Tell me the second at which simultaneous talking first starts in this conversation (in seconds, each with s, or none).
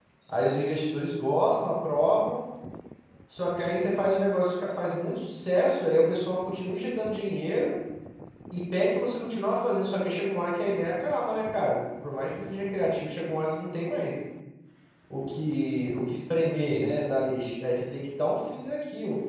none